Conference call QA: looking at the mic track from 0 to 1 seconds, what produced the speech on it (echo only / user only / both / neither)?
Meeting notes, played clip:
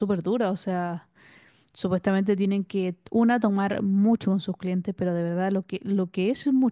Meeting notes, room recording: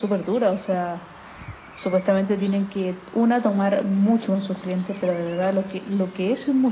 echo only